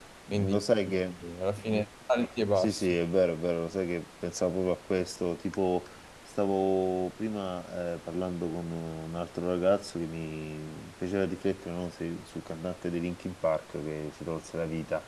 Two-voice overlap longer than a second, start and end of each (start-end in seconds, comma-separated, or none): none